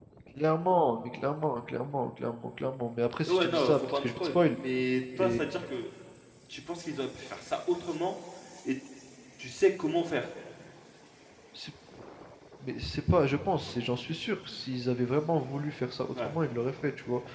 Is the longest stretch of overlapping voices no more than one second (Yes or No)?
No